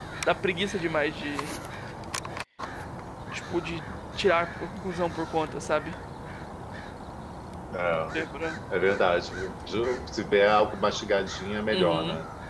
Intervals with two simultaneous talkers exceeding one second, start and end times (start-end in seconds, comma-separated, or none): none